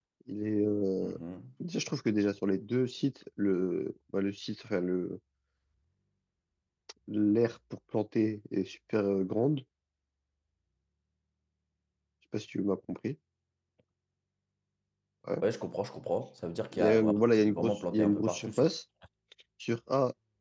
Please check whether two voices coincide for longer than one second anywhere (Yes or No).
Yes